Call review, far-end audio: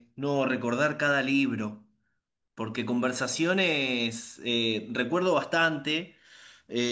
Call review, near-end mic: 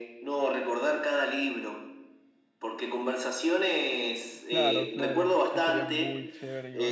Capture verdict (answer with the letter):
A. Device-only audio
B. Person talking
B